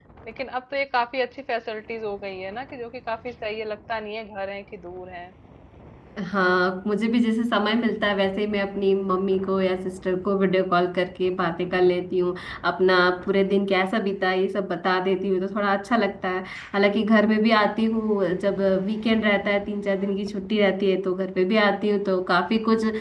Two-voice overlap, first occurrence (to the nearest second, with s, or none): none